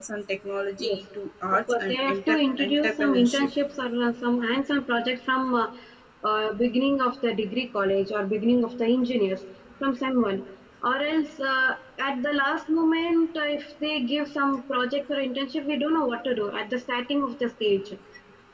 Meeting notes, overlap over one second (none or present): present